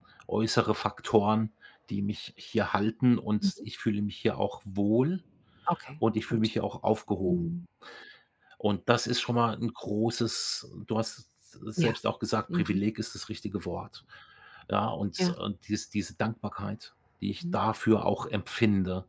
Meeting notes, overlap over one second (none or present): none